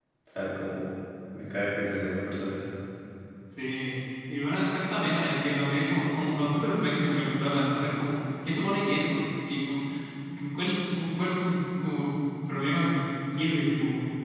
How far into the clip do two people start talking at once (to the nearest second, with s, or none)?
none